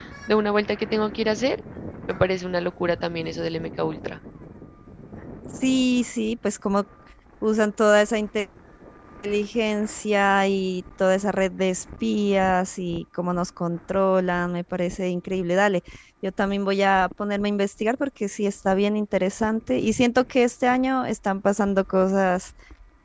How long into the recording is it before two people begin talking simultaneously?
none

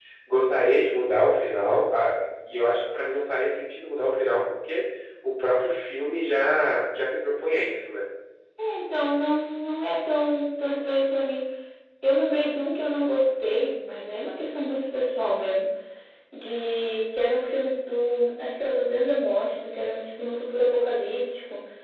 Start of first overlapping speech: none

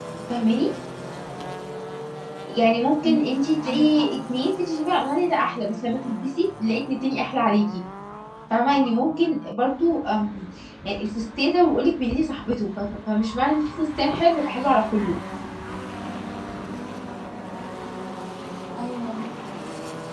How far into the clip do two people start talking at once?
3 s

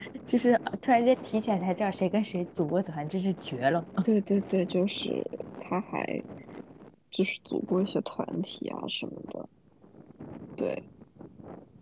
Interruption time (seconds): none

